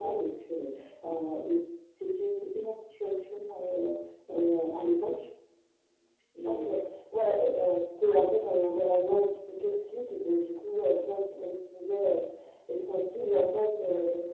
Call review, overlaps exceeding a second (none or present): none